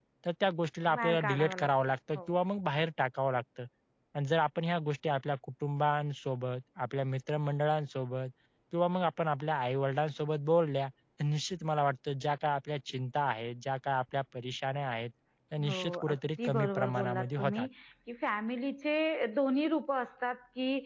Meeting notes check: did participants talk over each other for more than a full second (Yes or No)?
Yes